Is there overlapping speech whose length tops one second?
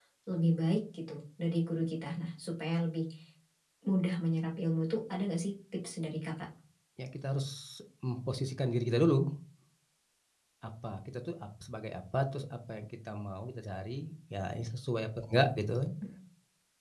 No

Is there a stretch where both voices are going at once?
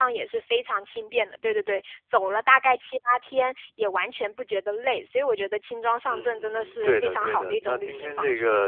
Yes, from 6.0 s

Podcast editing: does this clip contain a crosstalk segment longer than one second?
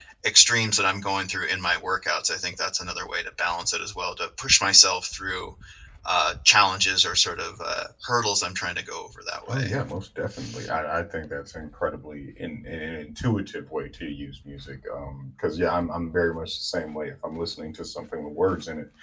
No

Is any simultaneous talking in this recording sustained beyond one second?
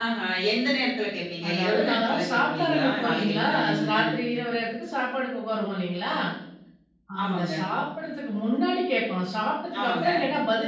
Yes, from 1.5 s

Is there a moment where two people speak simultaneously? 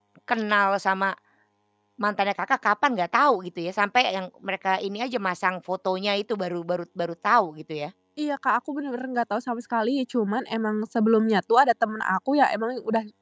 No

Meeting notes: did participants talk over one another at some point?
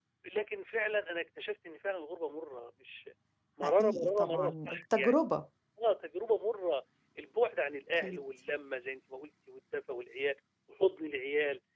Yes, from 3.6 s

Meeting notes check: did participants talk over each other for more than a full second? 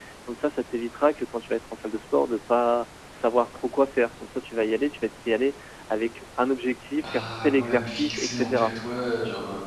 Yes, from 7.0 s

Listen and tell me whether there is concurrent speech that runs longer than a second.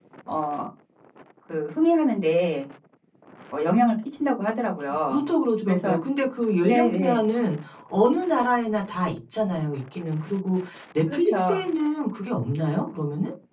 No

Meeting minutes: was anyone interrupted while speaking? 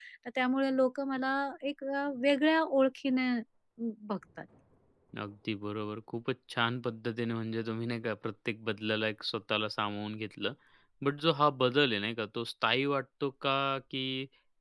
No

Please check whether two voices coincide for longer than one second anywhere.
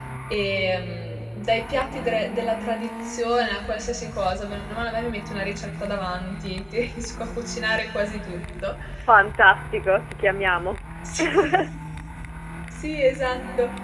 No

